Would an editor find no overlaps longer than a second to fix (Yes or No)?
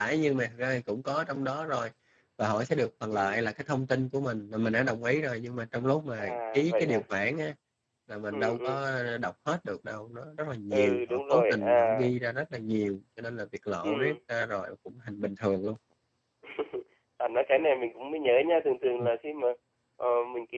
No